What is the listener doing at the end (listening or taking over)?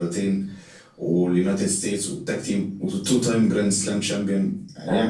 taking over